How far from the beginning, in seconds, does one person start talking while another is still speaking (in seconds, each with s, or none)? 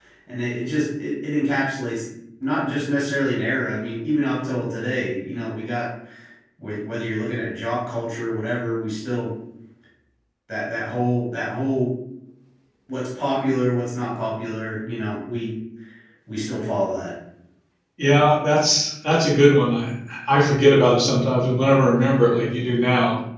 none